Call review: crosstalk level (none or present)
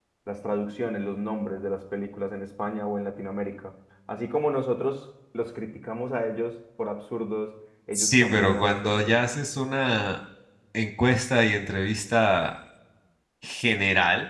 present